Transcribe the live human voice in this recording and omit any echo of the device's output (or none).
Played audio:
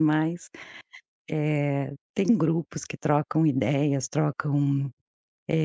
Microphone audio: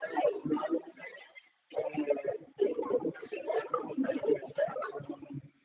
none